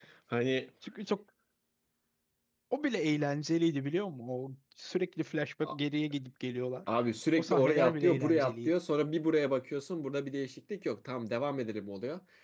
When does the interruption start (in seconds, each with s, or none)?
7.4 s